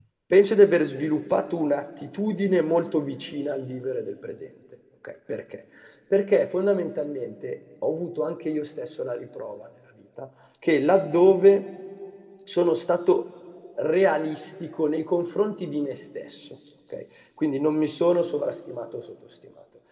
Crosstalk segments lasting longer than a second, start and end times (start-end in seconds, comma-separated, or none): none